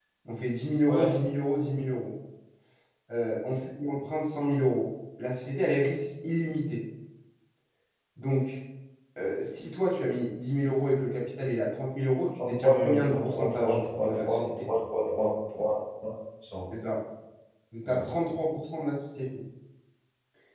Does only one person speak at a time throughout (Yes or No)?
No